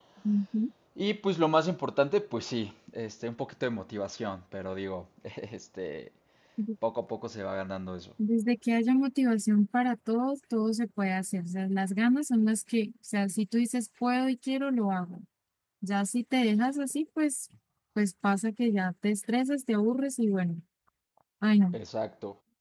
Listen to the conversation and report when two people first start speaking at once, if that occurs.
none

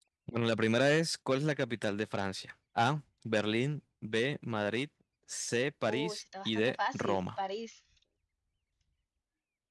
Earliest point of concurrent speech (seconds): 5.9 s

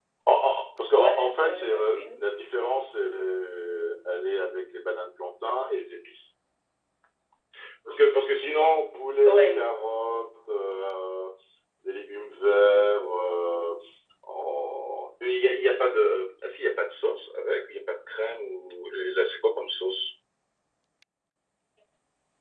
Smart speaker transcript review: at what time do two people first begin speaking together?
0.9 s

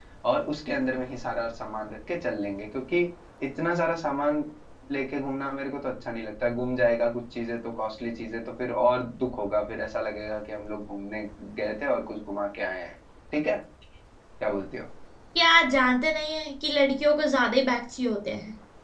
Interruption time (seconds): none

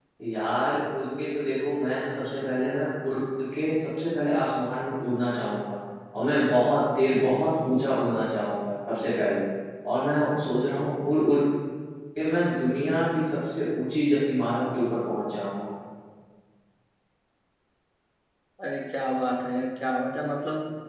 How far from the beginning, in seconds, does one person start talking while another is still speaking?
none

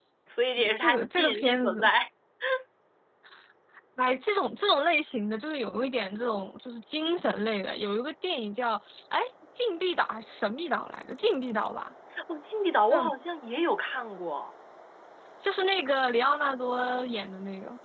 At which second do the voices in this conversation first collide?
0.6 s

